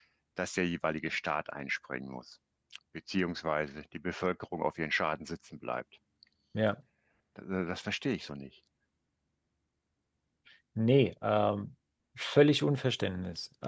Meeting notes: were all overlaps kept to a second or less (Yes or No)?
Yes